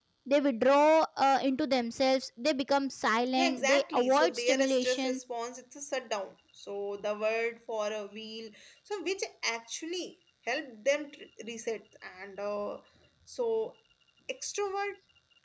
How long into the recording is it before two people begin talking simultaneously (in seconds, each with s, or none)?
3.3 s